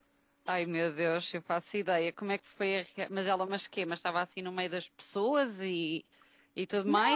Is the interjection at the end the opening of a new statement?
Yes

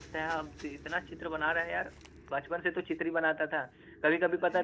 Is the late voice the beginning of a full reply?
No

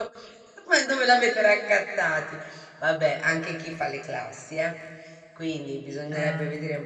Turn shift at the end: No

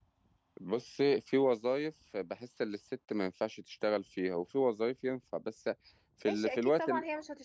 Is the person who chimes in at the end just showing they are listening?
No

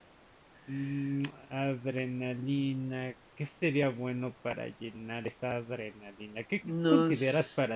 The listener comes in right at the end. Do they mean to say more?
No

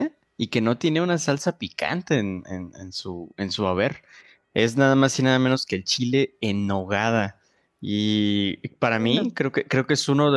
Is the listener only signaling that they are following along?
Yes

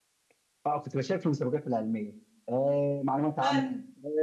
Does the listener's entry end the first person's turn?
No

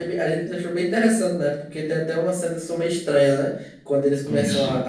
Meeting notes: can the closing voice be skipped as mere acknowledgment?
Yes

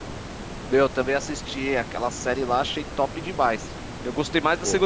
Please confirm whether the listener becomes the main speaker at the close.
No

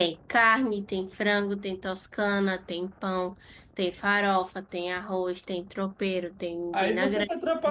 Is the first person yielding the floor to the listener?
Yes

